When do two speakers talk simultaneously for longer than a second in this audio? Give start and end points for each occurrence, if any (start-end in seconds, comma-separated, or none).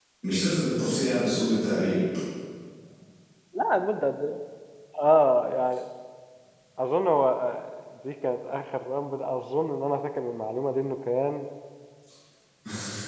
none